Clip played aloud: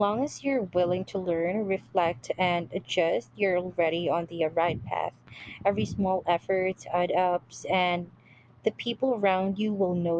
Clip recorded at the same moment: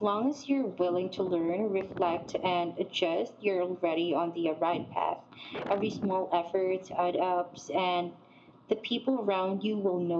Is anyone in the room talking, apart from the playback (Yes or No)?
No